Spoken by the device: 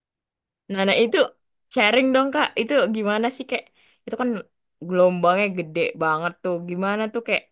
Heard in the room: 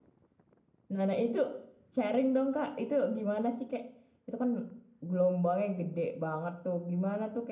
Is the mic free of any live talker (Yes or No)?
Yes